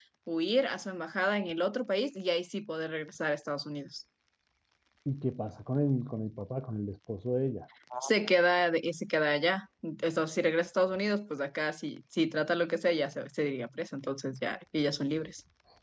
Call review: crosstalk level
none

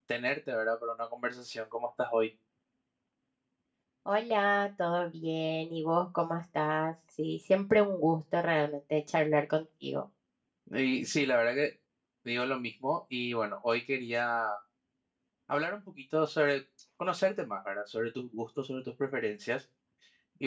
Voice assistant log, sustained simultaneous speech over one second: none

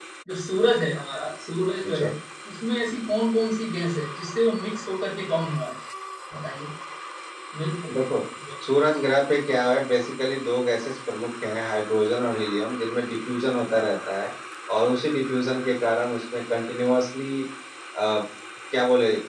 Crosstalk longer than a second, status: none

